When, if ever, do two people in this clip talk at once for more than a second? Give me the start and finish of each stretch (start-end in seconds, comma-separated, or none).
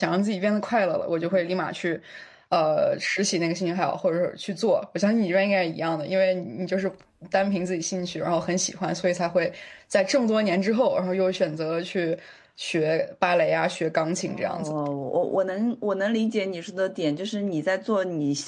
none